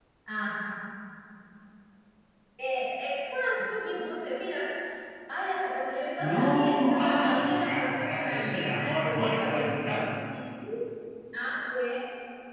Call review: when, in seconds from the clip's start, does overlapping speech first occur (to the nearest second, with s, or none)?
6 s